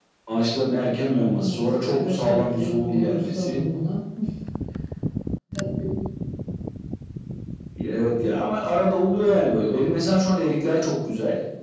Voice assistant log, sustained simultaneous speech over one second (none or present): present